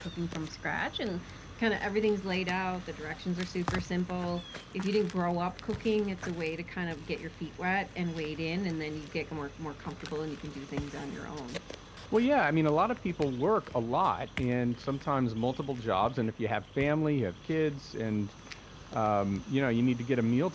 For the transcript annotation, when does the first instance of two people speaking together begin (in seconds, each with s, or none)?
none